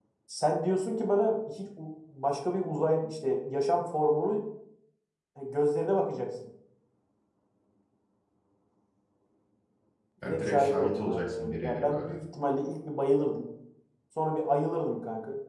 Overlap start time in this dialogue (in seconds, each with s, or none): 10.2 s